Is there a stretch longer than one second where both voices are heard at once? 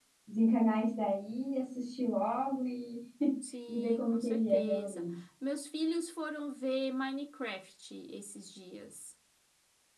Yes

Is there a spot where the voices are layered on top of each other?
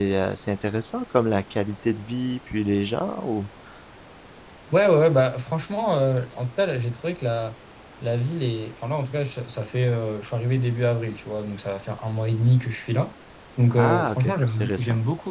Yes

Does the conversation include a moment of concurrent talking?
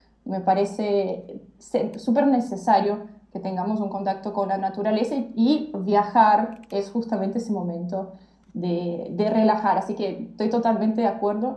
No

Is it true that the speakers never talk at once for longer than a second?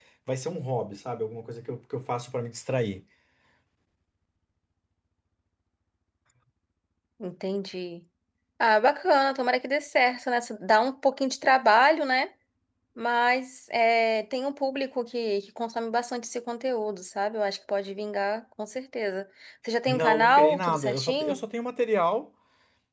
No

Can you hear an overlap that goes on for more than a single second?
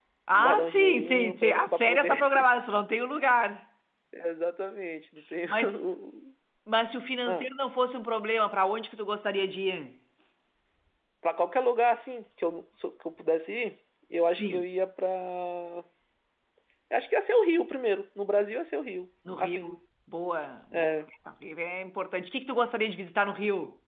Yes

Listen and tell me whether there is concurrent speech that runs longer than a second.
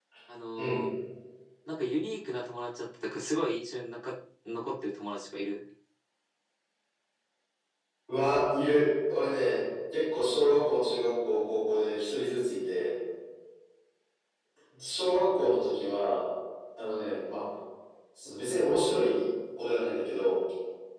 No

